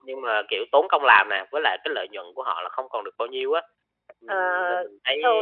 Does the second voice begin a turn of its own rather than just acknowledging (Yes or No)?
Yes